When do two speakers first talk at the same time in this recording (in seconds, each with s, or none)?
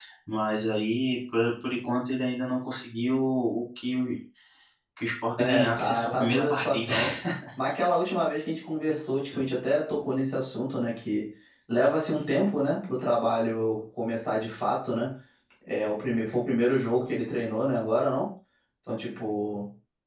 5.4 s